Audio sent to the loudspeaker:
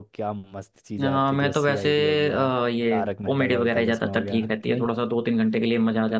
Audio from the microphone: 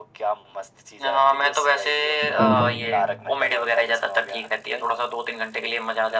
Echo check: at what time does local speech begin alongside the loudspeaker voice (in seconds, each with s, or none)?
2.2 s